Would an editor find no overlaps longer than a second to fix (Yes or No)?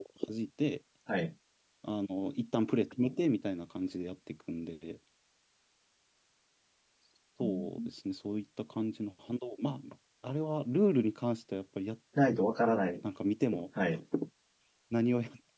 Yes